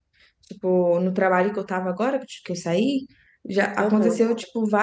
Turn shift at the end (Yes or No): No